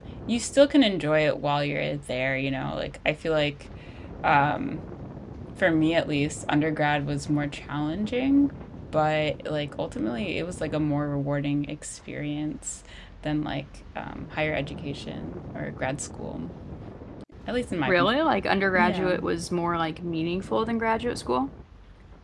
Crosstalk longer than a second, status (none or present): none